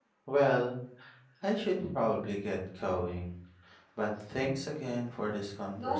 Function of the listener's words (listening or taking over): taking over